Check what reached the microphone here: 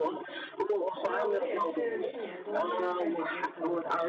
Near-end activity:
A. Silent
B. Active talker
B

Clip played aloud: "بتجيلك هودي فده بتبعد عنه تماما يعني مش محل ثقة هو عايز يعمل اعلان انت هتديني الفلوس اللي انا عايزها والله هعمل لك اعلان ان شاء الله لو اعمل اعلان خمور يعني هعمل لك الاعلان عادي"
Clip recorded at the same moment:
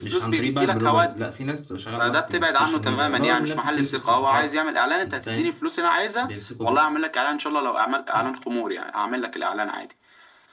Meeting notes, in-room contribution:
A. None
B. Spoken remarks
B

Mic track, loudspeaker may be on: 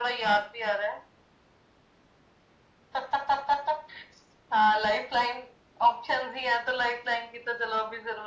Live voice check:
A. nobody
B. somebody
A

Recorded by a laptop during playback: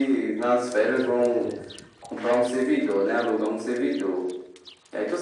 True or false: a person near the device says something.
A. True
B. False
A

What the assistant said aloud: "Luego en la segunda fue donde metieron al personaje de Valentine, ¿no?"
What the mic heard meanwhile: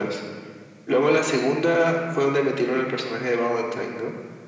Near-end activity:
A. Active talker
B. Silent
B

